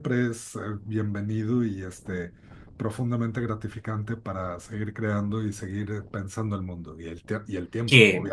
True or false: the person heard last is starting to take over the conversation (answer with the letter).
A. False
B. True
B